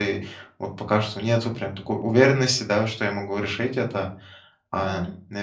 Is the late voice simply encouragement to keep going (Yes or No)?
Yes